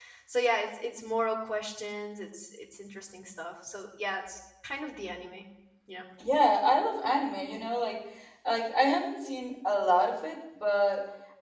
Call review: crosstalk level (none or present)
none